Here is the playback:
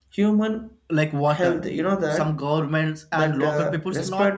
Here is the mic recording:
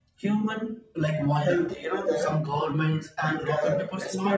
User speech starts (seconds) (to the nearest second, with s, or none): none